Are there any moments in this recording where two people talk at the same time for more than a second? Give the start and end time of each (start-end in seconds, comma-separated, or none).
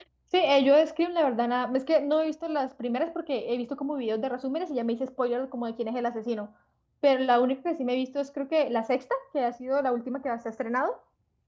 none